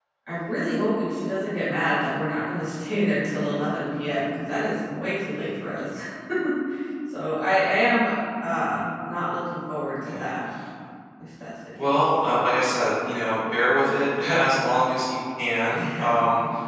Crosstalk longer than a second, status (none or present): none